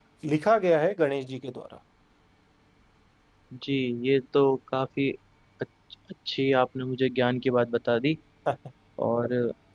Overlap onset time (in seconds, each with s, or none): none